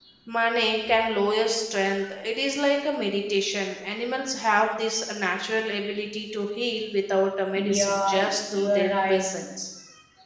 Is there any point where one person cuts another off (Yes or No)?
Yes